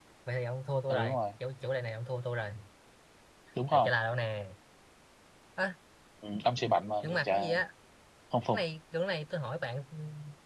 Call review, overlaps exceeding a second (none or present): none